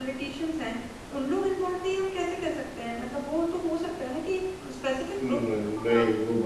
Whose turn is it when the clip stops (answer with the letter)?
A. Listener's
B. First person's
A